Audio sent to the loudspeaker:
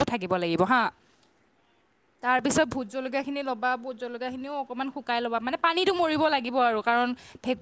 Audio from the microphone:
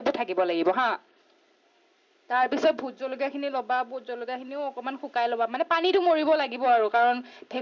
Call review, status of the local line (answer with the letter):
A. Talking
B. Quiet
B